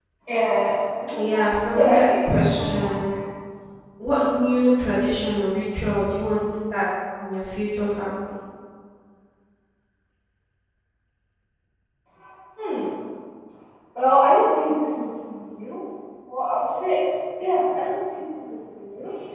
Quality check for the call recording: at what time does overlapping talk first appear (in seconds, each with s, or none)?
1.2 s